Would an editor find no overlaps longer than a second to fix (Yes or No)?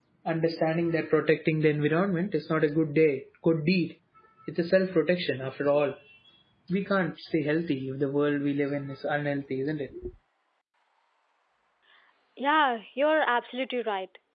Yes